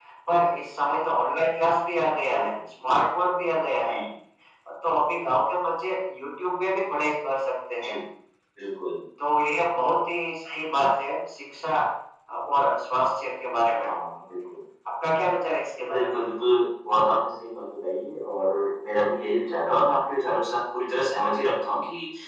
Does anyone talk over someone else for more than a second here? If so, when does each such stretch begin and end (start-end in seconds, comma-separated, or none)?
none